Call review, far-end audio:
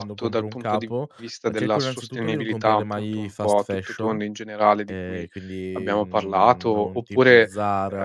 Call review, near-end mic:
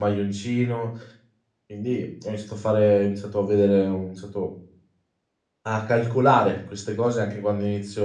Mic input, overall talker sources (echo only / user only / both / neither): user only